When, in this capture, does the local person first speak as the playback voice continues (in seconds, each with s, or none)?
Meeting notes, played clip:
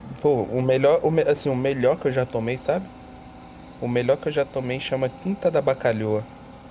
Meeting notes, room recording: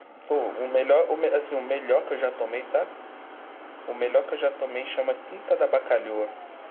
none